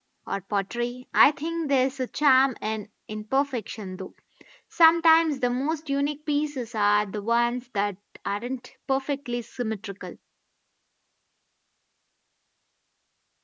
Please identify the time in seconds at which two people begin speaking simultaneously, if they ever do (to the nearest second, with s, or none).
none